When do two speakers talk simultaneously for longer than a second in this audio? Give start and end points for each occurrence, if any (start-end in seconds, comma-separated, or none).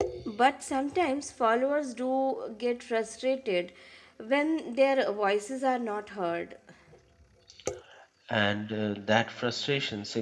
none